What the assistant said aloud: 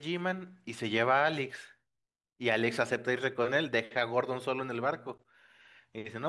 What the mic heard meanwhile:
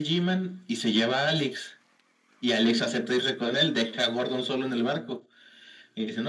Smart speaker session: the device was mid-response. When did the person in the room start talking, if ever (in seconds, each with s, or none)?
none